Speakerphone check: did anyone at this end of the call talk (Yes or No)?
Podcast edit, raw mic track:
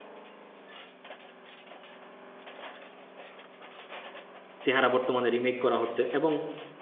Yes